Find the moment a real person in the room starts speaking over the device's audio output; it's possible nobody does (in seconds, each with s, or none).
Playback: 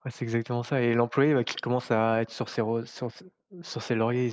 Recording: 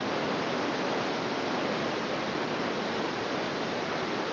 none